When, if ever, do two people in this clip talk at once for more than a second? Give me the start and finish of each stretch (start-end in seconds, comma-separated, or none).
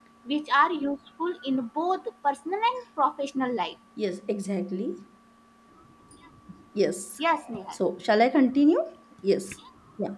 none